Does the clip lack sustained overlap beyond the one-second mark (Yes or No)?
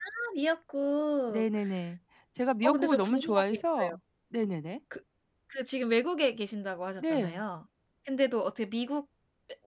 No